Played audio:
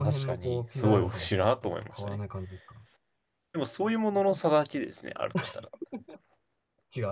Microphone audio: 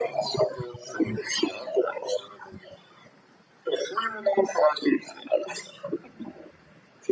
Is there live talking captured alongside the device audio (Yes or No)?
No